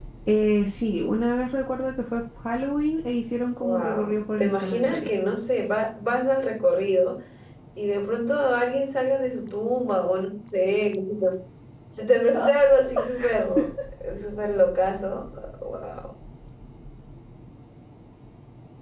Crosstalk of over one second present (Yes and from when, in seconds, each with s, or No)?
Yes, from 3.6 s